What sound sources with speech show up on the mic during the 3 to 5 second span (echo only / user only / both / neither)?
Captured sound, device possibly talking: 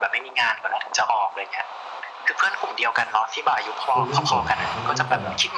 both